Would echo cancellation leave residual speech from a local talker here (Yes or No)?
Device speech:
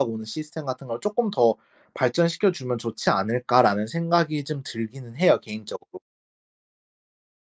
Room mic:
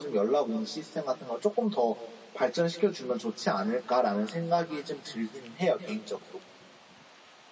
No